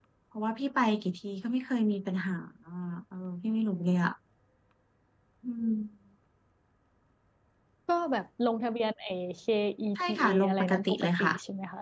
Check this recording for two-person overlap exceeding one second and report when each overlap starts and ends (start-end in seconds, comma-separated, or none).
10.0-11.3